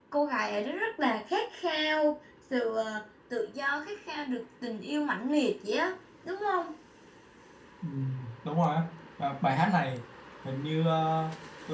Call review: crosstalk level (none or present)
none